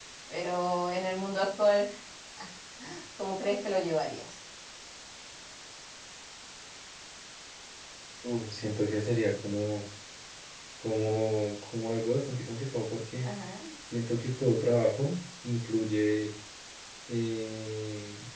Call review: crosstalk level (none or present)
none